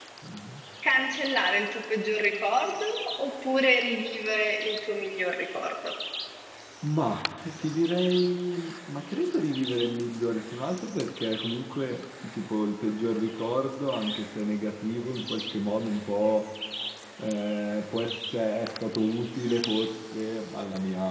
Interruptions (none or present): none